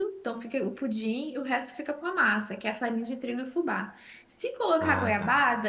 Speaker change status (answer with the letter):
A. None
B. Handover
A